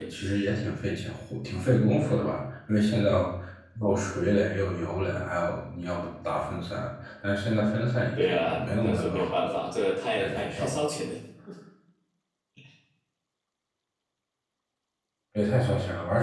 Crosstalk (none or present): present